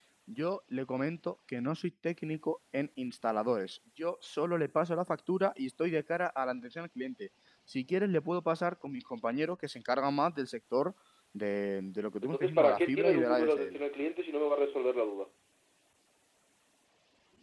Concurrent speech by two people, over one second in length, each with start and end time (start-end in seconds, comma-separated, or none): 12.2-13.8